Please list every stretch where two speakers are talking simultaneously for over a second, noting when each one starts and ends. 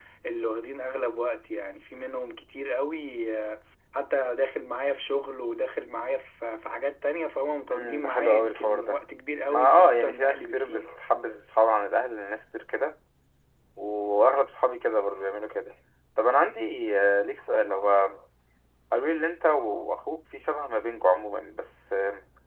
7.7-9.0, 9.5-10.9

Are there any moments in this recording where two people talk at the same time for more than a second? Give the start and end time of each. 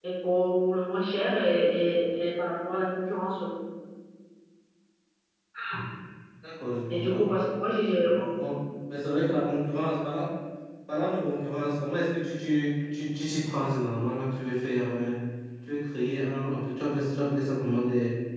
none

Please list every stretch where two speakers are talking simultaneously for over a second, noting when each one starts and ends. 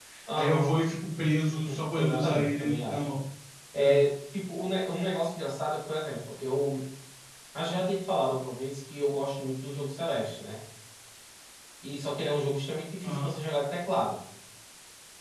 1.5-3.0

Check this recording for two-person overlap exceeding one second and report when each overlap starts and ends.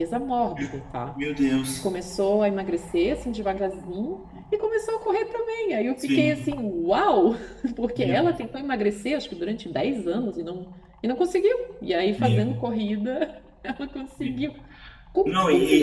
none

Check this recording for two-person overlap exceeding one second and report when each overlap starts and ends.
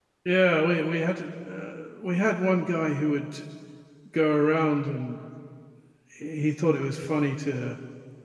none

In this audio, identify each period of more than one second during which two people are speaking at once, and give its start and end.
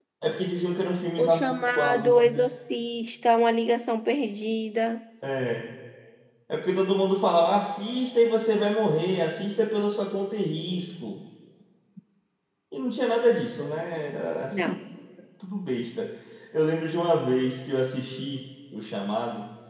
1.2-2.5

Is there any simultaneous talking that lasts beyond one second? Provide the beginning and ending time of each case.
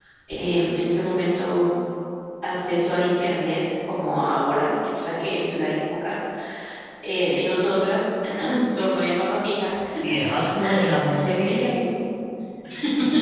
none

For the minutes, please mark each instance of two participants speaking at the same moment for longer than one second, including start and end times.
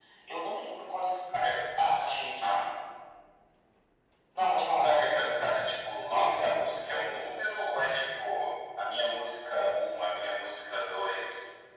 none

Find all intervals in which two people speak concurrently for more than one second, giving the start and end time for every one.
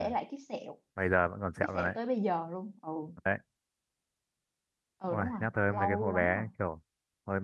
5.1-6.5

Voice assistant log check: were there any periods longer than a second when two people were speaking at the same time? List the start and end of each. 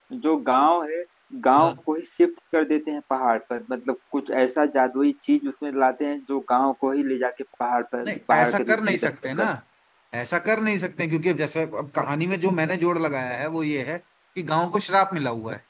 8.1-9.4

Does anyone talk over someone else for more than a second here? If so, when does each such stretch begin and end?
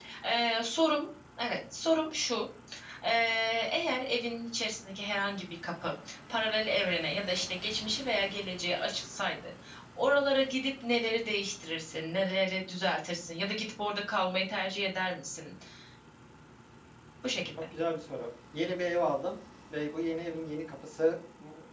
none

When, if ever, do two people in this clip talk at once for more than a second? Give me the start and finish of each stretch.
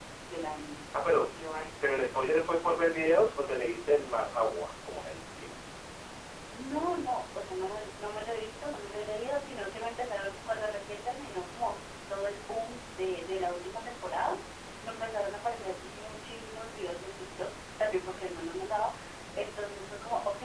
none

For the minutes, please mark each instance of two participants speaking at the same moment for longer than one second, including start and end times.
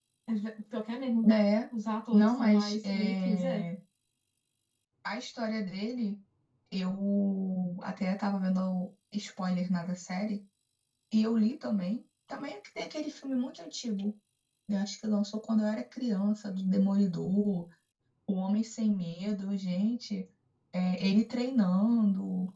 2.1-3.6

